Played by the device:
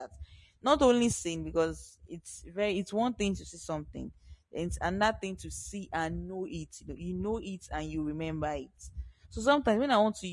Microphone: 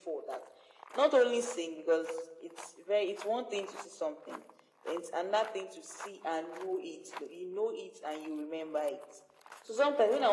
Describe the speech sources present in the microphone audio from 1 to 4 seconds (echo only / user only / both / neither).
echo only